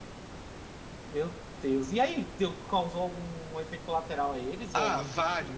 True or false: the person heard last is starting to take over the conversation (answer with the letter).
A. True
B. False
A